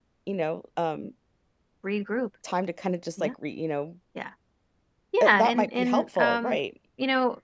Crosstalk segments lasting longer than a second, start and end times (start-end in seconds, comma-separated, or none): 5.2-6.6